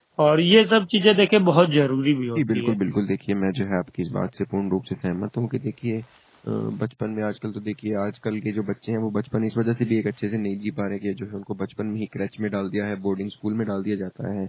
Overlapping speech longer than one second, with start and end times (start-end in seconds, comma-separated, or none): none